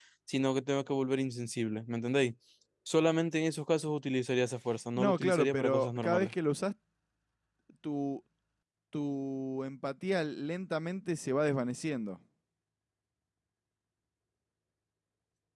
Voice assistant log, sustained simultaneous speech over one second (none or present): present